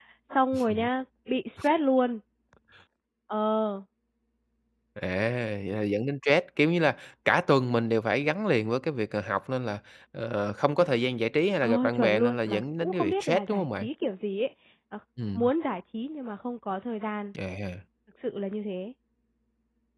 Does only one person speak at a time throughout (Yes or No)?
No